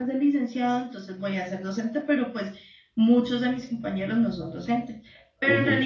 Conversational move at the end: listening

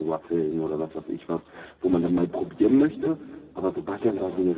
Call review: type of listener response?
listening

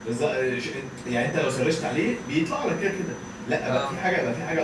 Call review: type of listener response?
listening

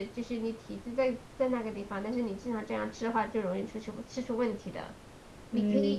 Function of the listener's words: listening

